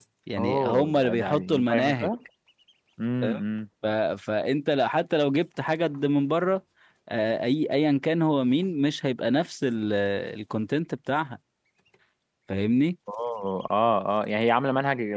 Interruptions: present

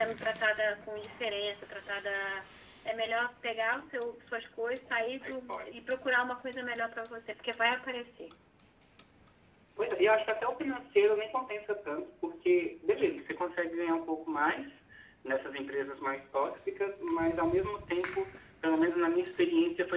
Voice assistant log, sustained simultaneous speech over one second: none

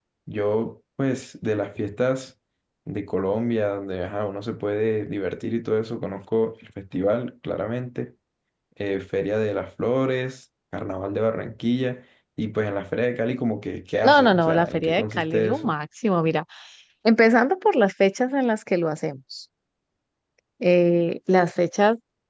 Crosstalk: present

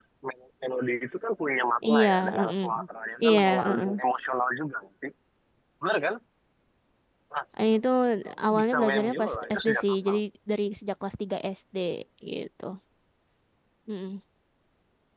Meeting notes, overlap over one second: present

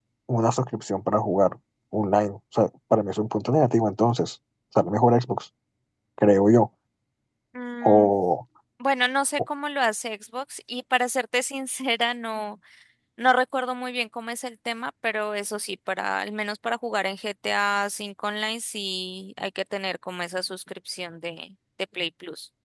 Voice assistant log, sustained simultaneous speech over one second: none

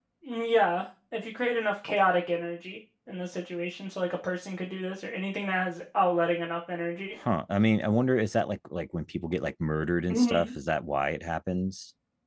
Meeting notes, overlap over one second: none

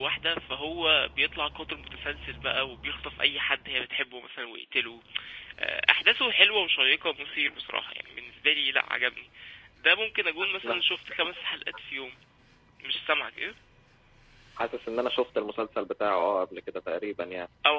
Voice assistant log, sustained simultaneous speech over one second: none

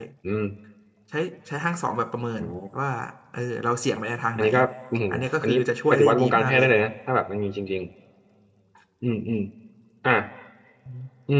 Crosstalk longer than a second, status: present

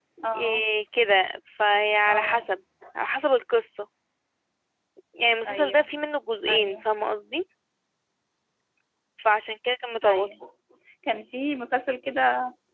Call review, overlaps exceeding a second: none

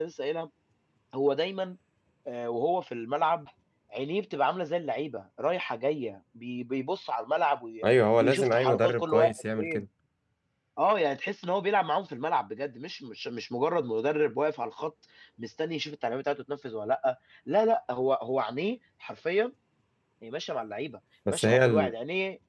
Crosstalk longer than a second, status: present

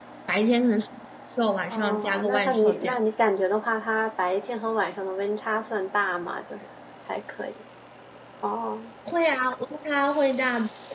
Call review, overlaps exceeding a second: present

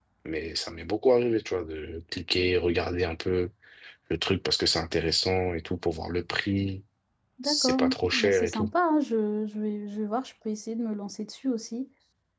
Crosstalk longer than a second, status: present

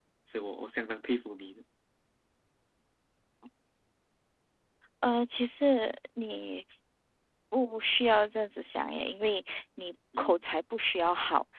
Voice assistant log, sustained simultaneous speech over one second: none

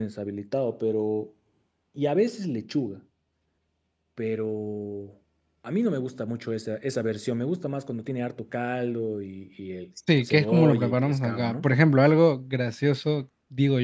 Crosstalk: present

